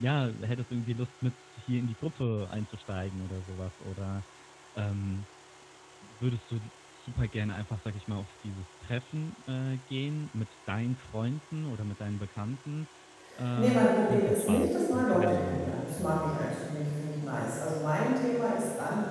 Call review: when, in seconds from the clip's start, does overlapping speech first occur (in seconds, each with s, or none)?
13.6 s